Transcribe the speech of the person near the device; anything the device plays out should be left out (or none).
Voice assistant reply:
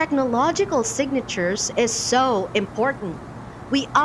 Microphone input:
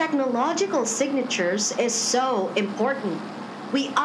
none